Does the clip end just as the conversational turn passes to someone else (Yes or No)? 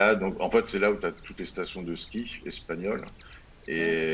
No